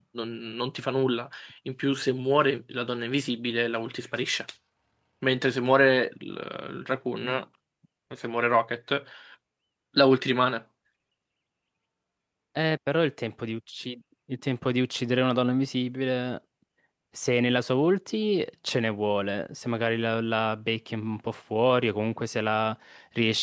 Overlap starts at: none

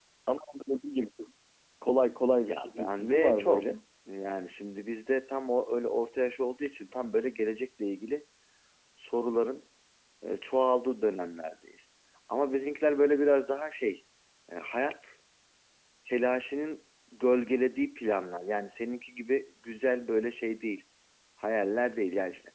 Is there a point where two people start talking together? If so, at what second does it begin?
2.4 s

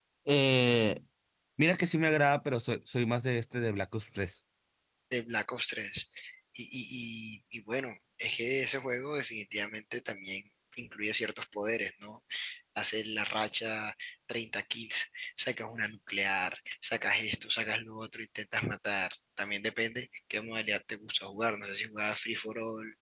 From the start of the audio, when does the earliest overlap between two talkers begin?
none

